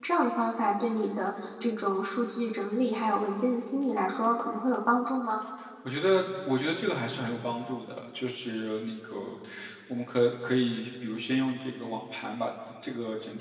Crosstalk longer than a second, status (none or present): none